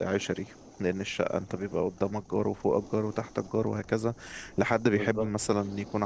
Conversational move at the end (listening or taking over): listening